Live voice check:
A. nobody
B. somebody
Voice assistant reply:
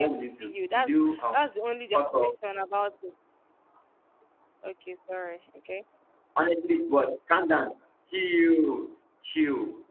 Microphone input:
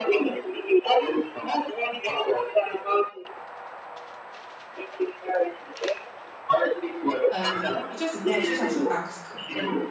B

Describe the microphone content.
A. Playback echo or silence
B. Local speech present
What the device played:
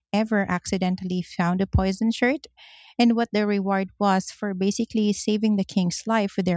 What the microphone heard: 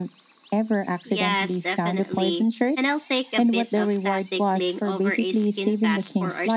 B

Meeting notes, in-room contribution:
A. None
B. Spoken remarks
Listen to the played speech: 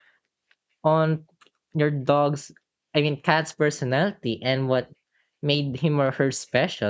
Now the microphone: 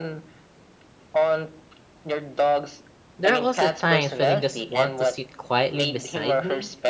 B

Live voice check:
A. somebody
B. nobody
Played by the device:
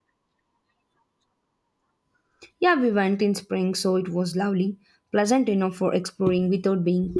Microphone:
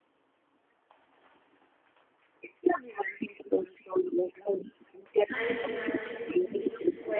A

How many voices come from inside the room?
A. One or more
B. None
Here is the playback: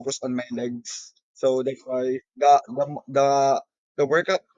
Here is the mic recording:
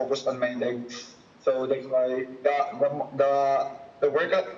B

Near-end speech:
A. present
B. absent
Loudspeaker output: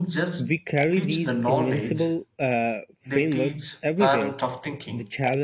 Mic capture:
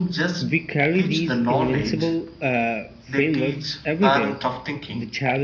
B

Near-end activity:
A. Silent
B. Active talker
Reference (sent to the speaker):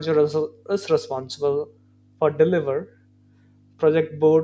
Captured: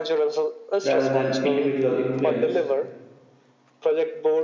B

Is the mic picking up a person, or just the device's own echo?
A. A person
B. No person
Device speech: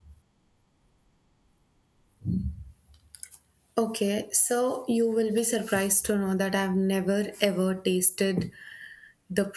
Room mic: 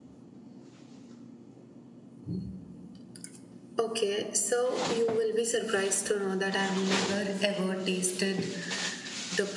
B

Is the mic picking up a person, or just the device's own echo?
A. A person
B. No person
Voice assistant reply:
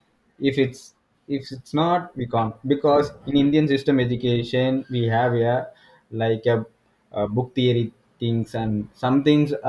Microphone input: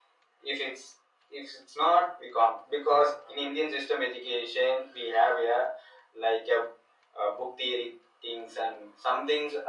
B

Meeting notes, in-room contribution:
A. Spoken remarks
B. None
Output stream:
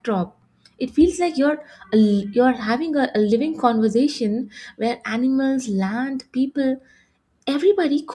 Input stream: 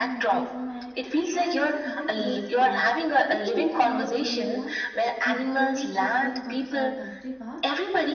A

